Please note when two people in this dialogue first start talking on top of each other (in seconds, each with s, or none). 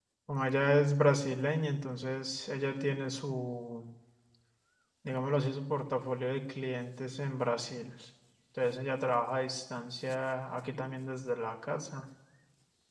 none